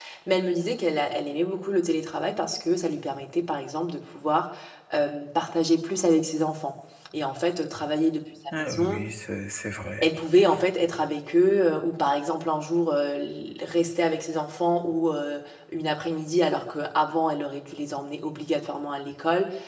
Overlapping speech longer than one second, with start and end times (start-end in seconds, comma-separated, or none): none